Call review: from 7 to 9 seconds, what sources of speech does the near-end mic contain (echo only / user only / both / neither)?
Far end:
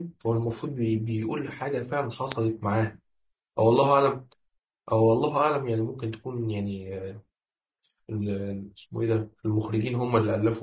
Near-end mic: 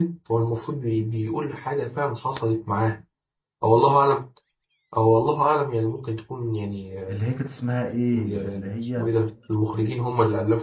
both